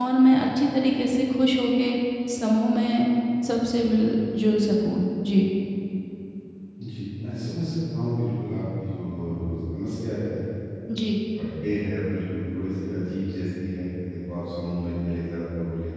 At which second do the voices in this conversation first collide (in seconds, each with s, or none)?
none